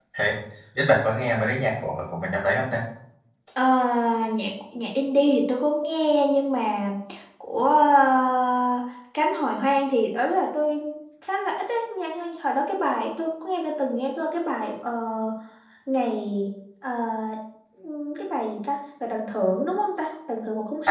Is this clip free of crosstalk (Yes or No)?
Yes